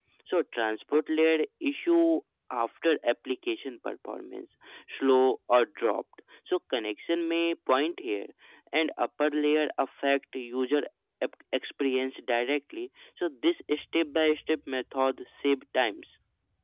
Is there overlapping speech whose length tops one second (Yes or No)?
No